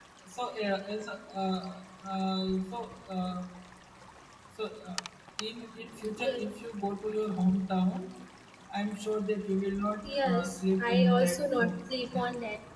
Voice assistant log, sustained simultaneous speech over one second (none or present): present